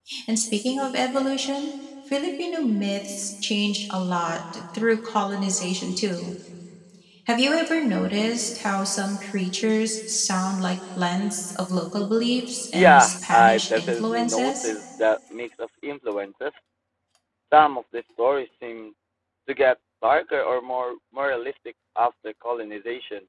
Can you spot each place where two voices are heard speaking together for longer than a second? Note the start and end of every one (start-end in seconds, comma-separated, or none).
12.7-14.7